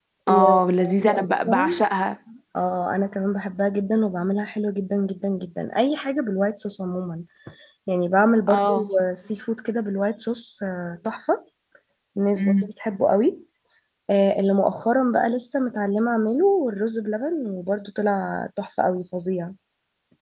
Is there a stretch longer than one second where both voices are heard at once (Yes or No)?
Yes